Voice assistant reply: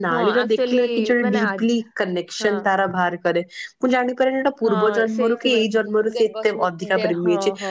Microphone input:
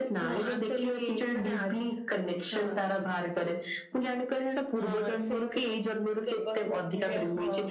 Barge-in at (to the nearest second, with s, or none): none